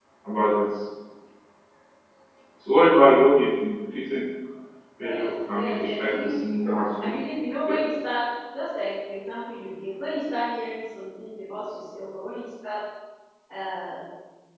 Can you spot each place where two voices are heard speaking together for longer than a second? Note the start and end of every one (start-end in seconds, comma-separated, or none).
5.0-6.4